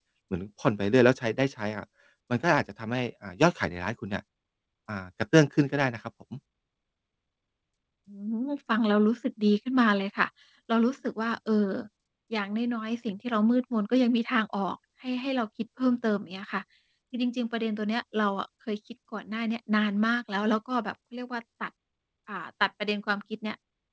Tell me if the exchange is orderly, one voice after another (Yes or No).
Yes